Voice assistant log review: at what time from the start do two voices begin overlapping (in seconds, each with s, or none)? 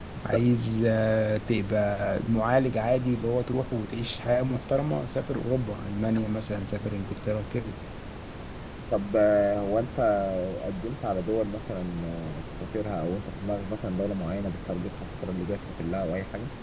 none